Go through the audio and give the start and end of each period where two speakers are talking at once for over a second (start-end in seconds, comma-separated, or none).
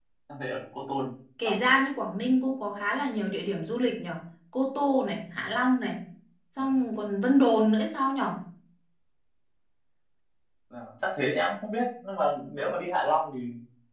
none